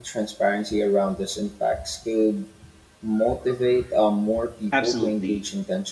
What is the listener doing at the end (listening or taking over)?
taking over